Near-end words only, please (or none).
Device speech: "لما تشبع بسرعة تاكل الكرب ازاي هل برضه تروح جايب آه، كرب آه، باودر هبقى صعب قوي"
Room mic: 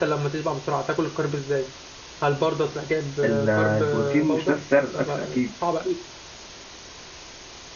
ال- البروتين مش نفس سعر الأكل أكيد